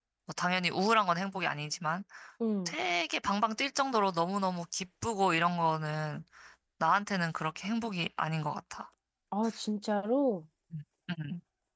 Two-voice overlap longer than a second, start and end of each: none

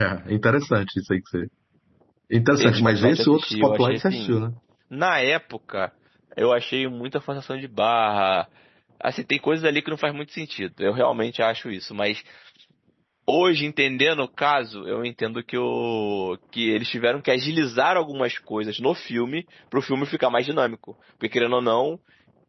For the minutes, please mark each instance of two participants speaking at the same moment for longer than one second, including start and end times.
2.6-4.3

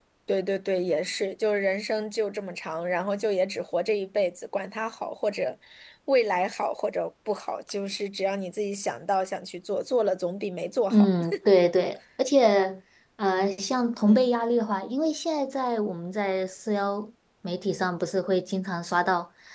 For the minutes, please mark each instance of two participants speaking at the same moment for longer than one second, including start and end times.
none

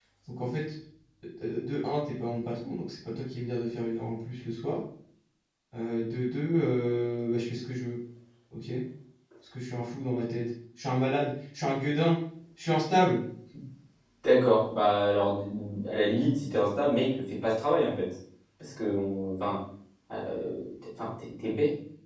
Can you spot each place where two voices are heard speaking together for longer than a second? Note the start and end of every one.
none

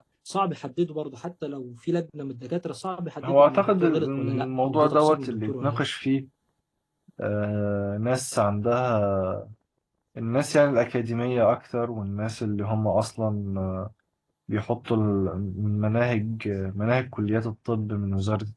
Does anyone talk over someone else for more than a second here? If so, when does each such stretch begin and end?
3.2-5.8

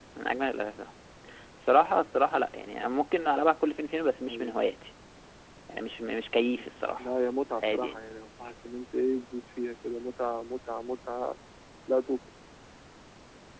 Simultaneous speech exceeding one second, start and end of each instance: none

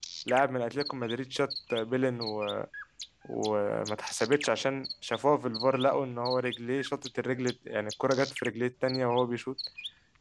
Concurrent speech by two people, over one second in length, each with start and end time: none

